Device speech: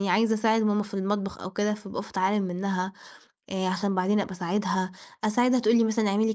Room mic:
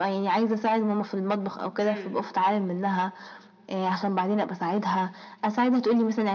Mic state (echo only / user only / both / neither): both